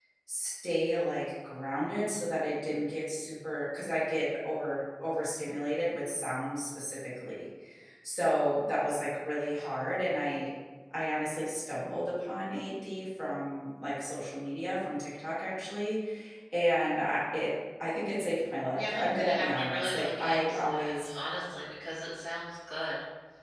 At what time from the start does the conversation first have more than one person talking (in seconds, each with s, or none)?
18.7 s